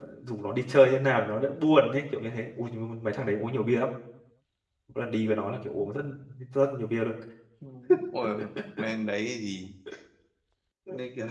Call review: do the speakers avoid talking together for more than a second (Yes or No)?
Yes